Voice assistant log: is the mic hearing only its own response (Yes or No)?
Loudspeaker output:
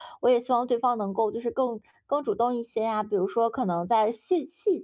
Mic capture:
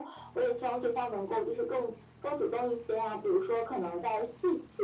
Yes